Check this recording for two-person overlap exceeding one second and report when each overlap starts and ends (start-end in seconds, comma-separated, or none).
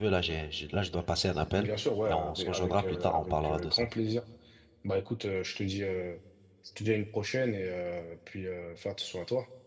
2.1-3.9